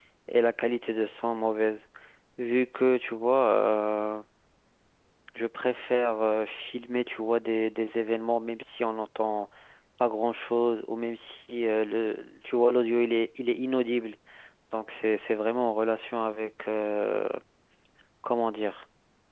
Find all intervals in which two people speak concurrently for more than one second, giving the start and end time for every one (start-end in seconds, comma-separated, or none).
none